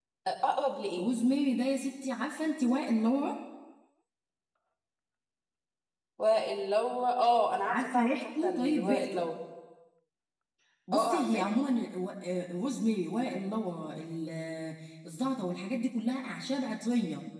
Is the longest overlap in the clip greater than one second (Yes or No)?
Yes